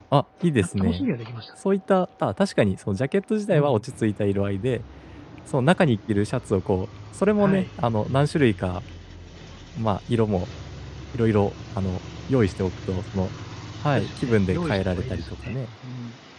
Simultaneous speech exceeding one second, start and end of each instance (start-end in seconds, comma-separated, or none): 13.9-15.6